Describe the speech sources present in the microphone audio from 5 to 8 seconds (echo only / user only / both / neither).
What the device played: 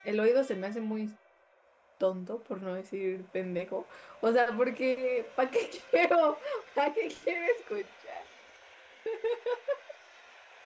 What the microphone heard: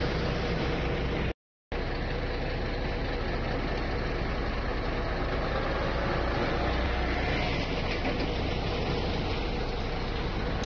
neither